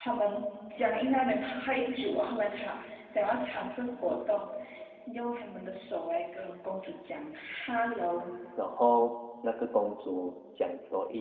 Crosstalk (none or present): none